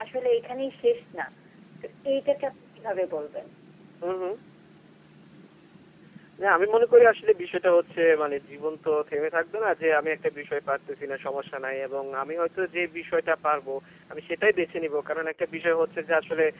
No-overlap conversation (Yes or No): Yes